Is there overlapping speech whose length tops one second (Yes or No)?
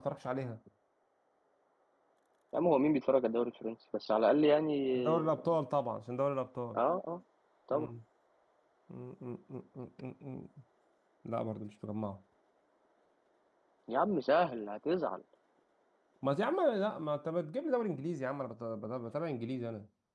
No